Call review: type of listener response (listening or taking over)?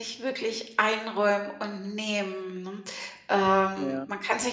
listening